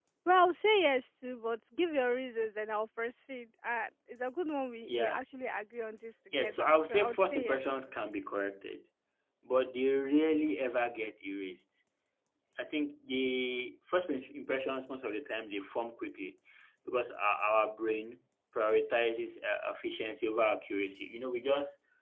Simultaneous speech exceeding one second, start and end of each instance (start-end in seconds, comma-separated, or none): 6.4-7.7